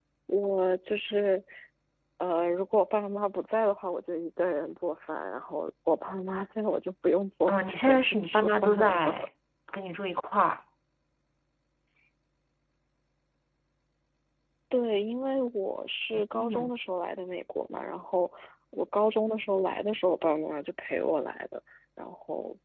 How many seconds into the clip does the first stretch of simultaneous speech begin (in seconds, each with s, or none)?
7.5 s